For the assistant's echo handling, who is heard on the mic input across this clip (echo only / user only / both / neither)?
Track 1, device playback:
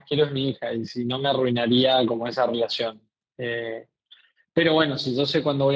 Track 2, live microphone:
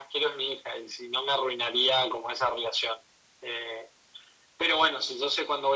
echo only